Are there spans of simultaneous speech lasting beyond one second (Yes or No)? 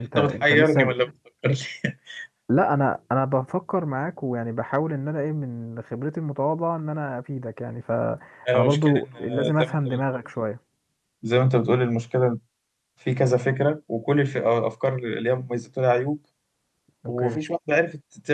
Yes